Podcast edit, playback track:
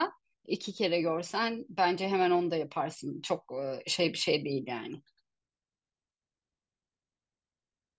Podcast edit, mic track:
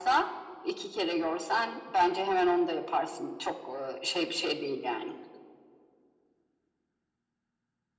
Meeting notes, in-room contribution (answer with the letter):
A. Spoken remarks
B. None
B